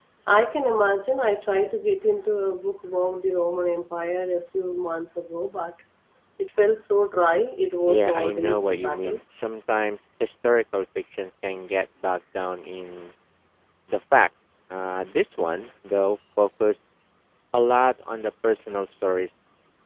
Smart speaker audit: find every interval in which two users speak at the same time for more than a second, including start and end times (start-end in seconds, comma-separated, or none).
7.9-9.2